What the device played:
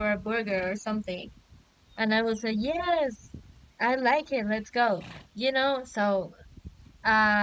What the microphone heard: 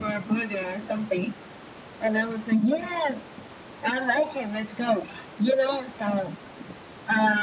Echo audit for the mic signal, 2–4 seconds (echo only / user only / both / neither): echo only